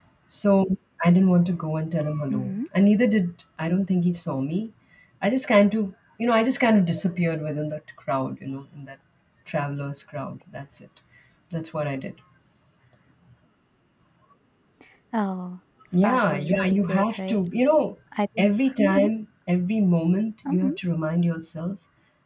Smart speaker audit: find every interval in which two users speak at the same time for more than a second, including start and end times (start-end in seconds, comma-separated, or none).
16.0-17.4